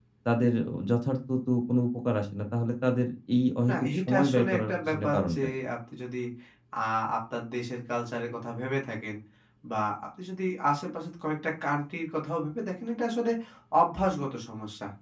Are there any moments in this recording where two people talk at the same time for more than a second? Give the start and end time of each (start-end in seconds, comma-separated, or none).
3.7-5.4